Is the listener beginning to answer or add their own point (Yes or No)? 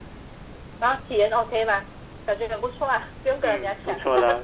Yes